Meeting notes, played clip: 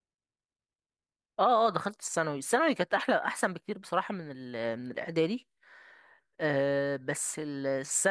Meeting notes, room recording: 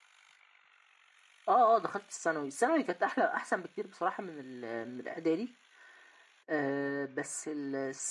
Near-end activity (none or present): none